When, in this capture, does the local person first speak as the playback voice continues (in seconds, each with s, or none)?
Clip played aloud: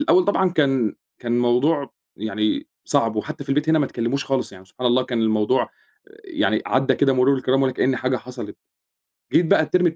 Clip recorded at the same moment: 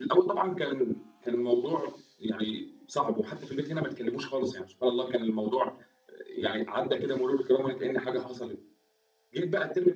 none